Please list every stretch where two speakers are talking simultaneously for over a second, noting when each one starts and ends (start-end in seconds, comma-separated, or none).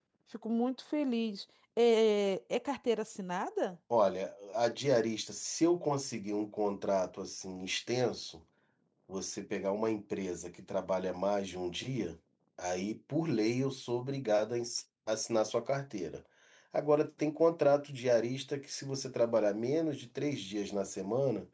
none